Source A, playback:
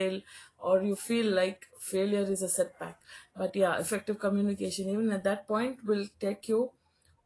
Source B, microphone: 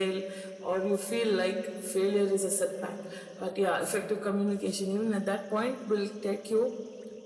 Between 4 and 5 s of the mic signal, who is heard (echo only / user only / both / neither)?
echo only